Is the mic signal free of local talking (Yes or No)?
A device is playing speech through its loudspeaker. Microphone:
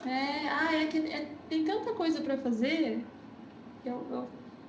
Yes